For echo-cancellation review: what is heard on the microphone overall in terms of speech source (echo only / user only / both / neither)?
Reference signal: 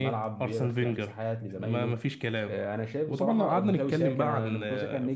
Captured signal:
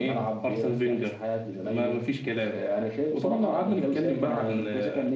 echo only